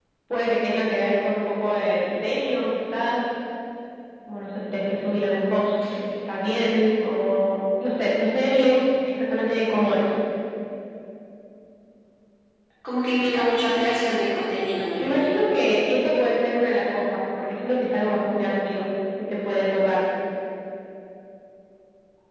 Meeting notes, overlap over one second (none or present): none